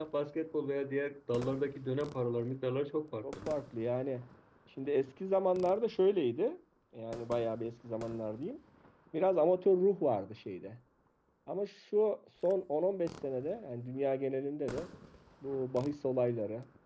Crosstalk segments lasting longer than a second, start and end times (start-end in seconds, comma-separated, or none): none